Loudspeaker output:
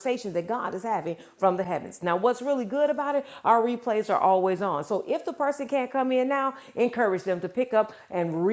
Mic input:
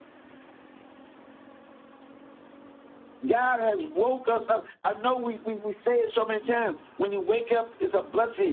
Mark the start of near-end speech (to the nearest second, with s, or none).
3 s